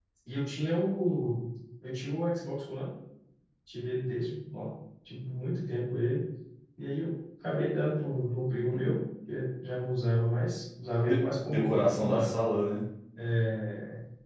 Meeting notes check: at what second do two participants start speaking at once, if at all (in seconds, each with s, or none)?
11.1 s